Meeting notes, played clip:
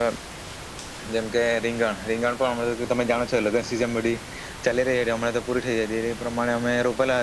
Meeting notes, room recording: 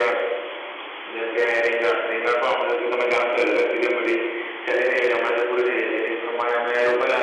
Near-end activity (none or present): none